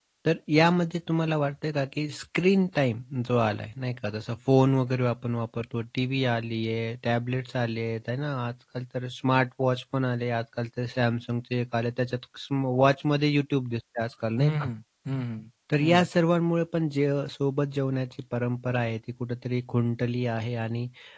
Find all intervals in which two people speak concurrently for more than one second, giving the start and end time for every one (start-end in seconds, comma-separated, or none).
none